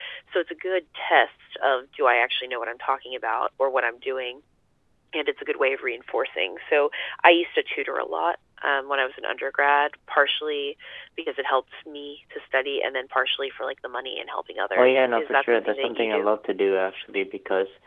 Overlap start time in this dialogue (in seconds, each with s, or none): 14.8 s